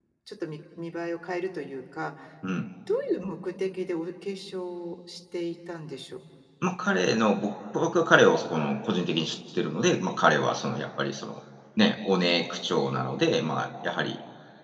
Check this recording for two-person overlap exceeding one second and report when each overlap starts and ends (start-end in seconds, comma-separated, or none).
none